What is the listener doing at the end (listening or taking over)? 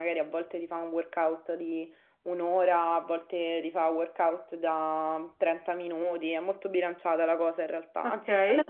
listening